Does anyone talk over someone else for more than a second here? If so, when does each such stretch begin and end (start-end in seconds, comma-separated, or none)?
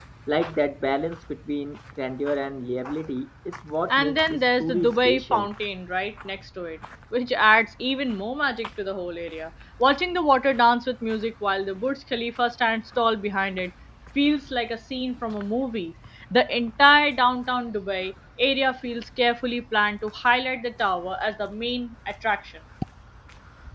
3.9-5.5